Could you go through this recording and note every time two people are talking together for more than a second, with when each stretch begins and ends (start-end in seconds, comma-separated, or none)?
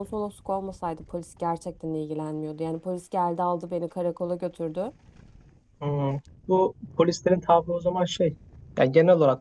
none